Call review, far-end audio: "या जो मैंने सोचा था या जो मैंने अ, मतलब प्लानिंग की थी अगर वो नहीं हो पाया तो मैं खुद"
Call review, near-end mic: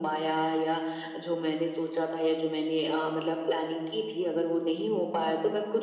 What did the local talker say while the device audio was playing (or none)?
none